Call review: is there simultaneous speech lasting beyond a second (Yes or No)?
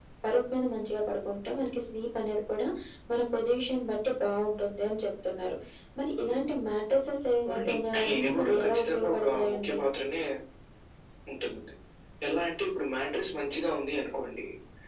Yes